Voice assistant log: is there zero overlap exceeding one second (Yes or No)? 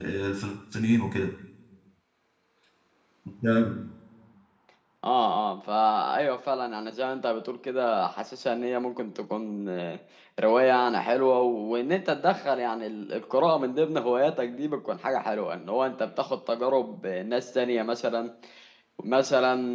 Yes